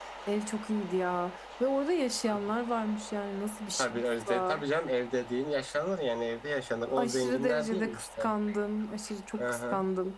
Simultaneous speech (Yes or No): Yes